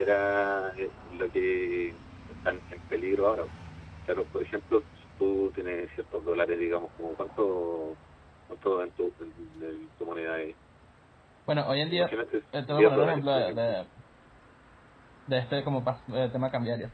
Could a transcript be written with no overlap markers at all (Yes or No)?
No